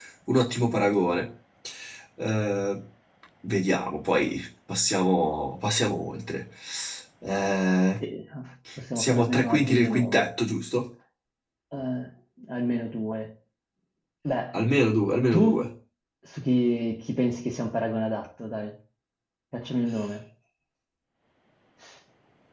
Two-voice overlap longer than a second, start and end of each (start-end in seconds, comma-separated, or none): 8.9-10.3